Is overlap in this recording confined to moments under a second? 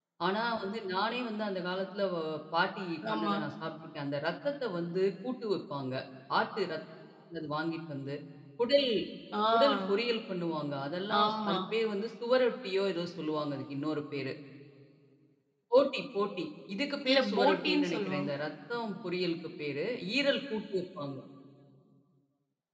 No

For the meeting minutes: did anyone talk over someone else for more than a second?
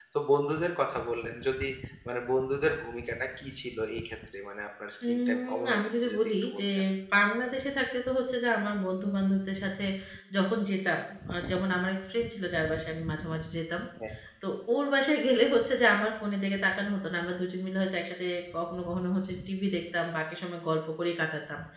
Yes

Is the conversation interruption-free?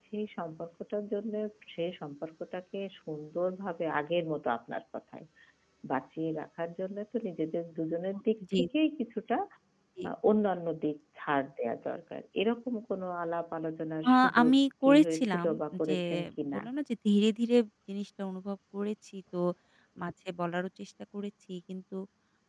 No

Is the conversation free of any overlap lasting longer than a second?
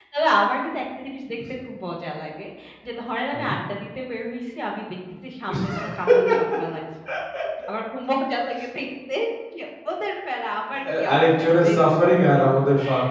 No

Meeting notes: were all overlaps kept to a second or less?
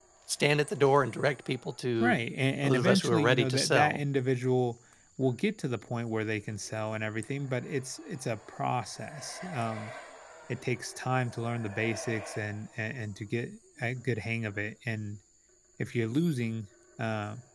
No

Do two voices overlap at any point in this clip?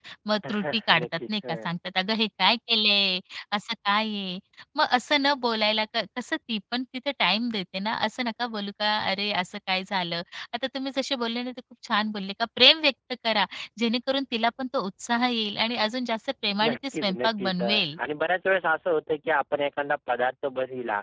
Yes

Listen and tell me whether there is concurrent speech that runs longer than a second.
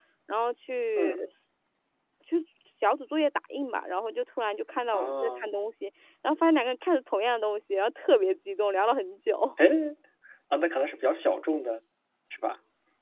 No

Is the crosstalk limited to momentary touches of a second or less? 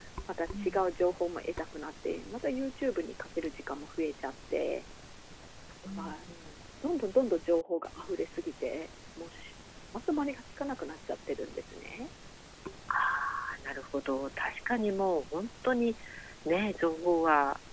Yes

